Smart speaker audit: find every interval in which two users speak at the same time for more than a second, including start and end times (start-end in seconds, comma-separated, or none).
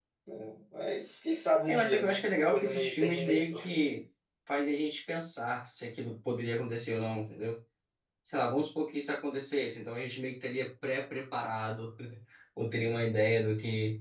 1.7-3.6